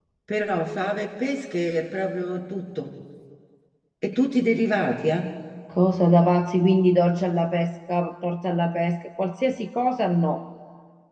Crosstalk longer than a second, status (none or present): none